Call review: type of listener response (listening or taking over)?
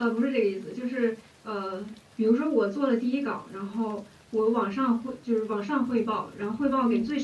listening